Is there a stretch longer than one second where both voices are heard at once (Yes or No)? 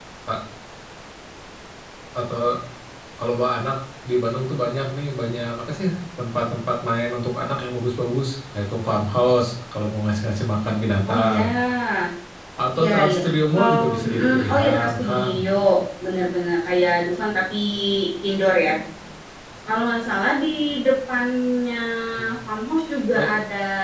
Yes